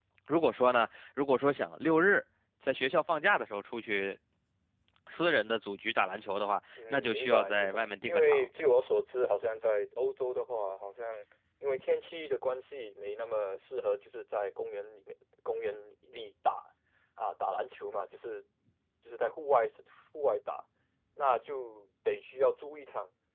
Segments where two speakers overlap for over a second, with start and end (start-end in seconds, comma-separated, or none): 6.9-8.5